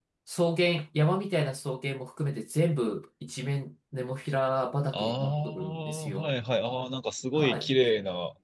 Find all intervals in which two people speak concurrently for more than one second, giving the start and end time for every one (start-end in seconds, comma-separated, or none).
4.9-6.3